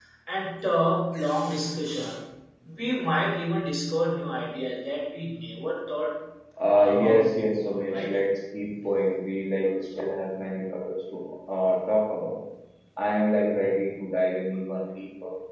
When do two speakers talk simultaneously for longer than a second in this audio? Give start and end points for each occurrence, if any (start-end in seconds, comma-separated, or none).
6.8-8.2